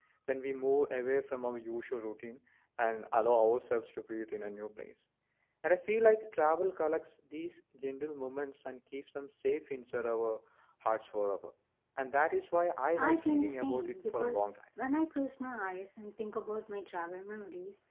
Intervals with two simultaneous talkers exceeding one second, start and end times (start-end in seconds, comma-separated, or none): 13.0-14.5